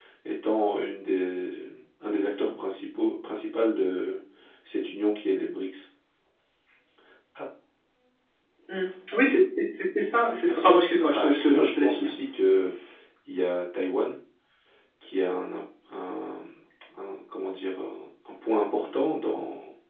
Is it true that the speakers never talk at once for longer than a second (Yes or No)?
No